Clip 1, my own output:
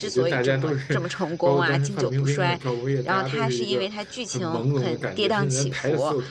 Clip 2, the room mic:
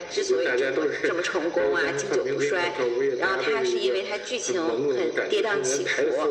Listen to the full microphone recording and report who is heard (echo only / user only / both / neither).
echo only